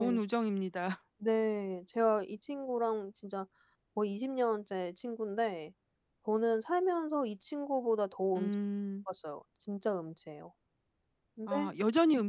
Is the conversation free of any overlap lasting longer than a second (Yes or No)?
Yes